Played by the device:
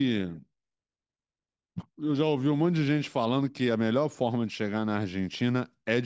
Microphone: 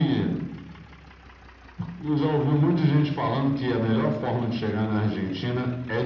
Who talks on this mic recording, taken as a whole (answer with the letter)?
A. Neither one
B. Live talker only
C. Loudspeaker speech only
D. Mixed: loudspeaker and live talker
C